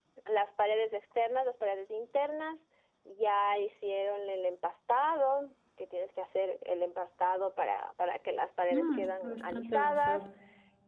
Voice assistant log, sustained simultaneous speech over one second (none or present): present